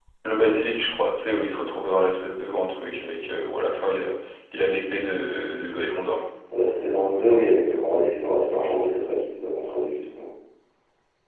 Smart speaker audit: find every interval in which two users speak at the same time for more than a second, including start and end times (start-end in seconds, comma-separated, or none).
none